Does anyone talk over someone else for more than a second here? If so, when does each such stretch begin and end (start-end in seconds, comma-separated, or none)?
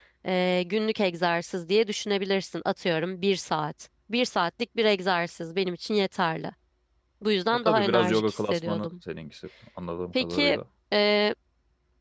7.5-8.9